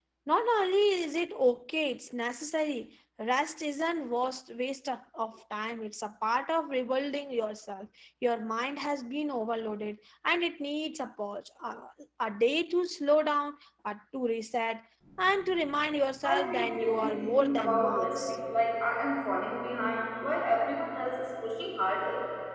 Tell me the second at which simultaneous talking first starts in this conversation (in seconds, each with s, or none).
16.2 s